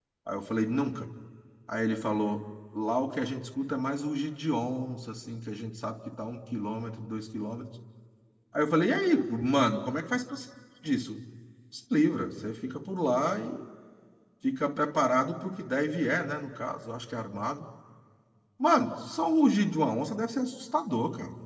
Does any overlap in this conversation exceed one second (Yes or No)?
No